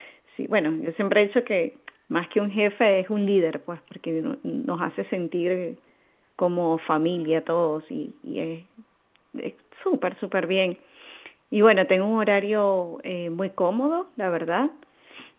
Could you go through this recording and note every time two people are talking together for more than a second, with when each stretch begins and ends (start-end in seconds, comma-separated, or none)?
none